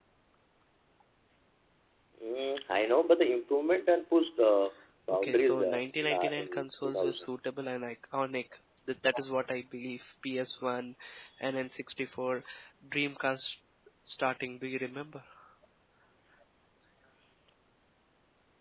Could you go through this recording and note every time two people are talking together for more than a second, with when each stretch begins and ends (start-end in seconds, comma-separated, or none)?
5.2-7.2